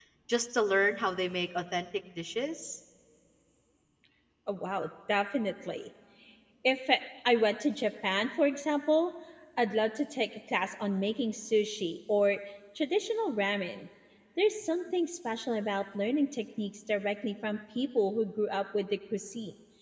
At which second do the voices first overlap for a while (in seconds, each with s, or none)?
none